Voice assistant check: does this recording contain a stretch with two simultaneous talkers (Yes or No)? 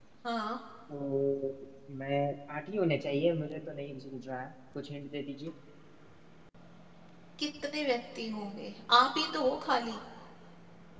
No